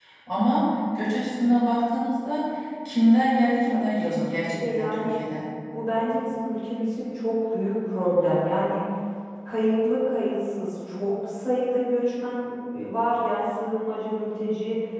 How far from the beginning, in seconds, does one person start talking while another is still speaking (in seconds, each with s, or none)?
3.7 s